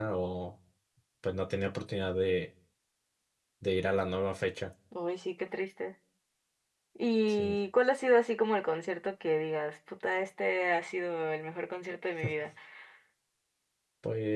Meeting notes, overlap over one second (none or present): none